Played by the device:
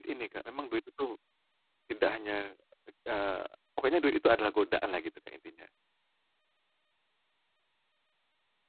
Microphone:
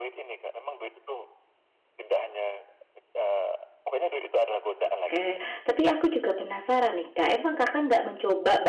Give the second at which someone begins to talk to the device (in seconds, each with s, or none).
4.8 s